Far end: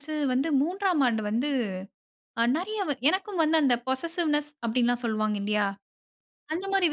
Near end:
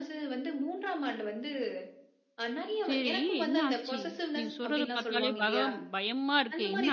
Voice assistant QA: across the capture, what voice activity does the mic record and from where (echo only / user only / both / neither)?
both